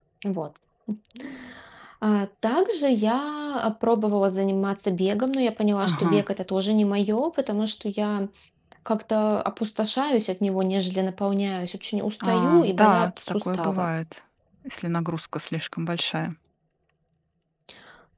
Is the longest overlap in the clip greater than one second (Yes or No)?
Yes